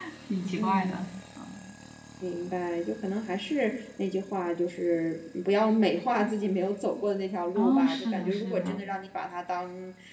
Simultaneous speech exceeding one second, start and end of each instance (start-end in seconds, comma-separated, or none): 7.6-8.8